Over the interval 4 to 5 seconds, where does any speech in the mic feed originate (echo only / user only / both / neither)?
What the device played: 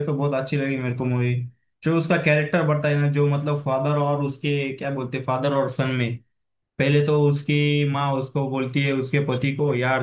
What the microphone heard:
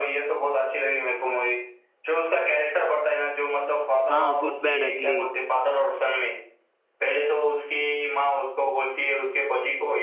both